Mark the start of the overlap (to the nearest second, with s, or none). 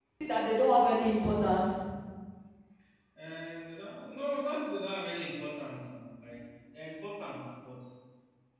none